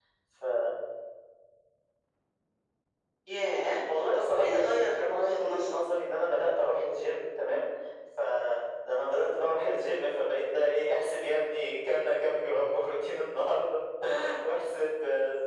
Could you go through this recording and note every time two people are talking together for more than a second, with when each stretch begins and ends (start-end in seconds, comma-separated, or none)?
3.9-5.8